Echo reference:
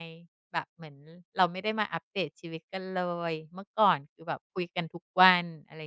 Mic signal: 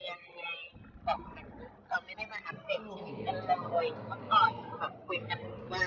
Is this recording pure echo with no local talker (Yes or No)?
No